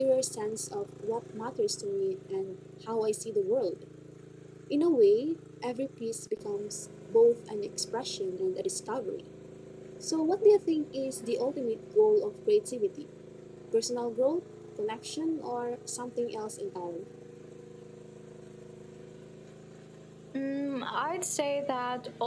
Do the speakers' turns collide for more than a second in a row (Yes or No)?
No